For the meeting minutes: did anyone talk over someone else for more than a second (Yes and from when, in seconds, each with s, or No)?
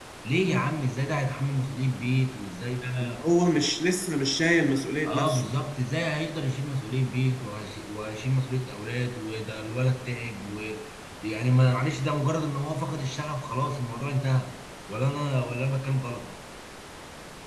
No